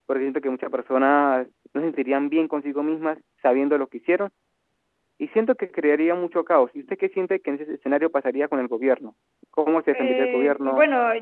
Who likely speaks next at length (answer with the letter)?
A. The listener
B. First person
A